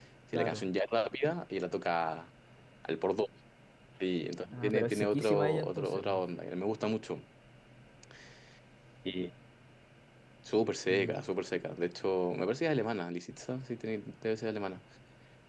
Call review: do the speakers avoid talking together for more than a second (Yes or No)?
No